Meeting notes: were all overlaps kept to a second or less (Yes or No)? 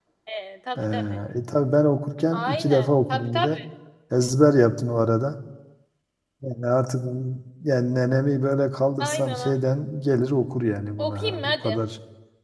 No